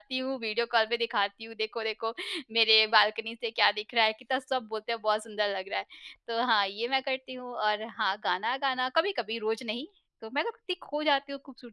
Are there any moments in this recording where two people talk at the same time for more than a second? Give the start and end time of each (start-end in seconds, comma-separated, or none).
none